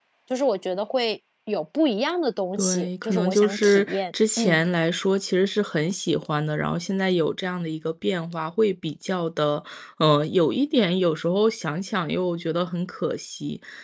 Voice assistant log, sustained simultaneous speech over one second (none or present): present